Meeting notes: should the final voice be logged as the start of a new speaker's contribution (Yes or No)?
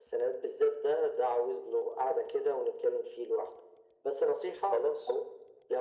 No